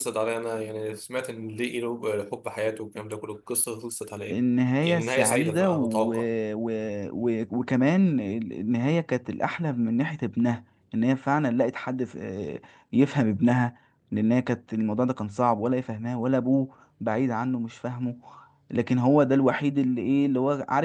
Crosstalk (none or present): present